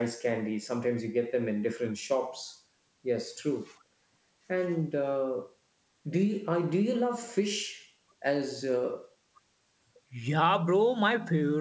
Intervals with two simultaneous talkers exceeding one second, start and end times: none

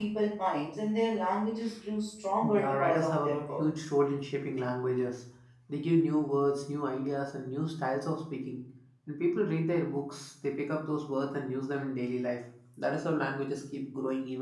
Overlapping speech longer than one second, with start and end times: 2.4-3.6

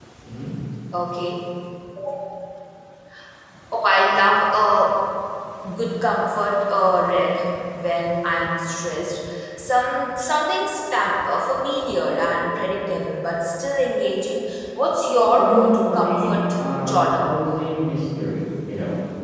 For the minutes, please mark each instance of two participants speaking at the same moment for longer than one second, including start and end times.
15.4-17.3

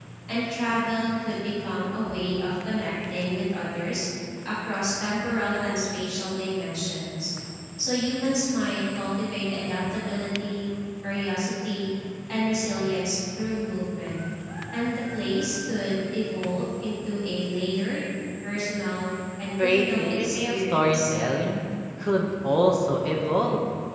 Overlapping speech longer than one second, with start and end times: 19.6-21.0

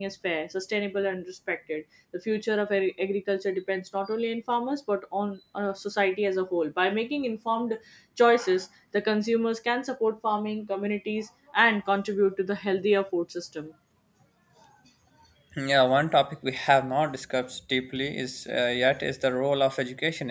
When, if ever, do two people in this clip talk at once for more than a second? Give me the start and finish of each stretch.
none

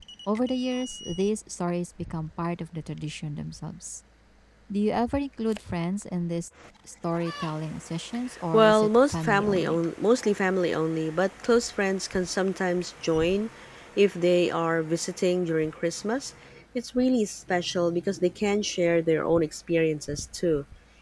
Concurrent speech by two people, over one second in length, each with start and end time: 8.5-9.8

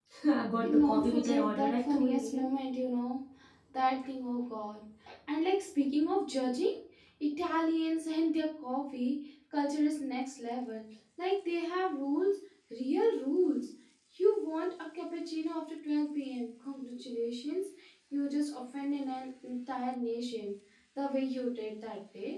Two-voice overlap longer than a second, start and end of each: 0.6-2.5

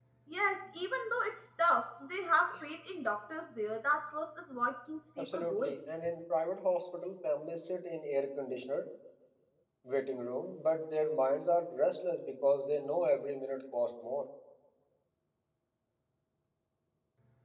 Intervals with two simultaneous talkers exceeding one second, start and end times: none

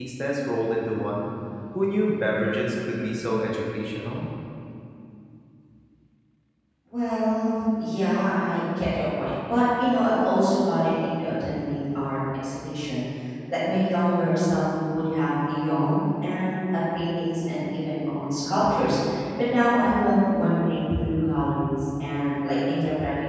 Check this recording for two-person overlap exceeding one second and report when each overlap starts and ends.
none

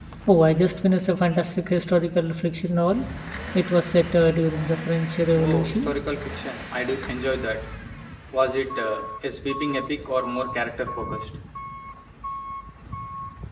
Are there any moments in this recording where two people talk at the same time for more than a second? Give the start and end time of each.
none

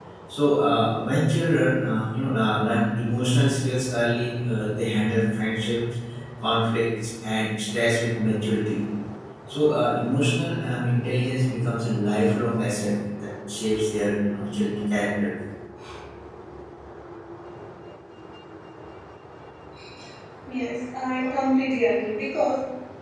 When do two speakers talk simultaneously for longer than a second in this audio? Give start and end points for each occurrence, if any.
none

